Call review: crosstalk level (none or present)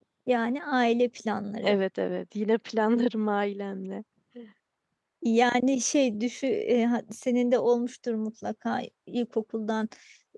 none